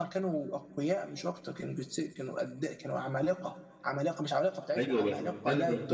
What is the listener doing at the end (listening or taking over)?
taking over